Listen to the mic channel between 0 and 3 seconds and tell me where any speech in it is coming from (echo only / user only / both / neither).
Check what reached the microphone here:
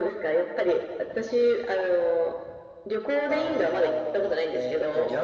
echo only